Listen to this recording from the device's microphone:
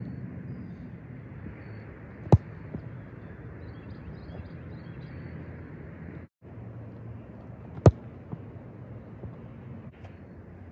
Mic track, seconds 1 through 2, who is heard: neither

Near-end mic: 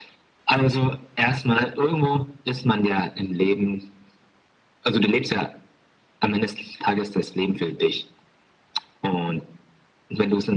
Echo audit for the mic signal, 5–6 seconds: echo only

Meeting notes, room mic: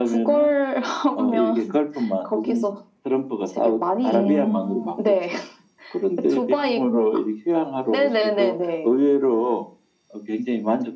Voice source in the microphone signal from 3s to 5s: both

